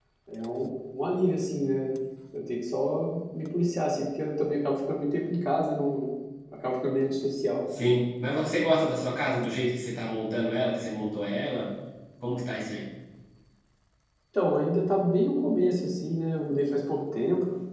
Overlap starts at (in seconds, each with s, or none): none